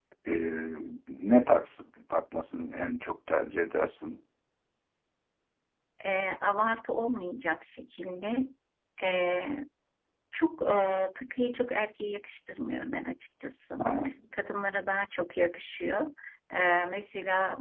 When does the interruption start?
none

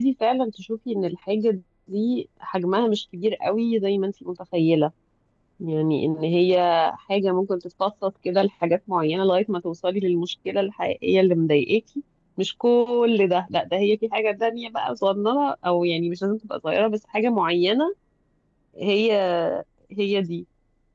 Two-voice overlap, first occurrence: none

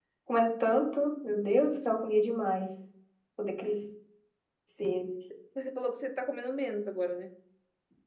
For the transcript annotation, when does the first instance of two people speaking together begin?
none

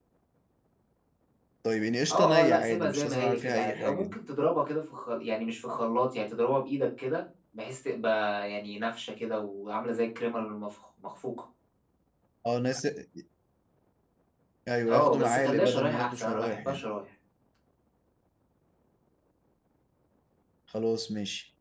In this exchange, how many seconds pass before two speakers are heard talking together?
2.1 s

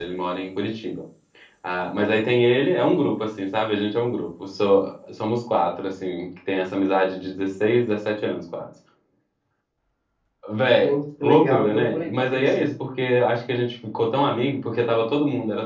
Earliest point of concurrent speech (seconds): 10.8 s

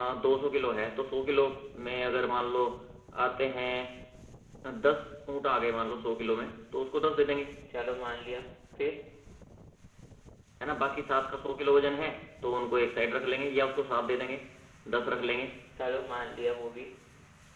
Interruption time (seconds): none

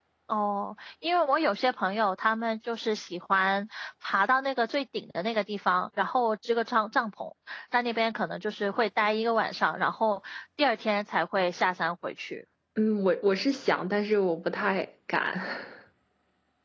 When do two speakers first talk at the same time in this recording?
none

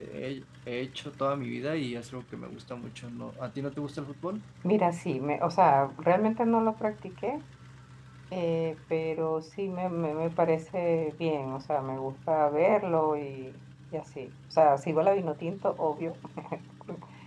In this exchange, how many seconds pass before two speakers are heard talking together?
none

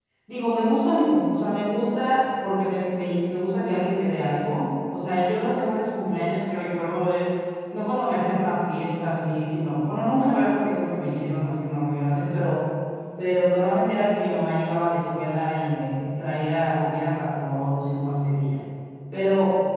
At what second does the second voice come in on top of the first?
none

